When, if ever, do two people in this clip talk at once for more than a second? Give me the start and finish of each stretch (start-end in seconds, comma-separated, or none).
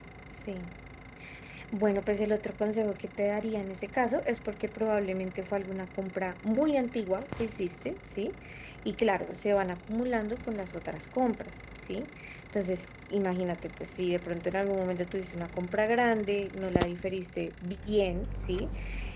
none